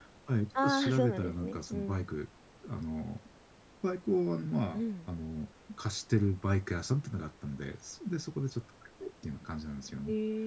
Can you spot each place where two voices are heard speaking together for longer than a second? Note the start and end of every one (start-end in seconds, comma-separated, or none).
0.6-2.1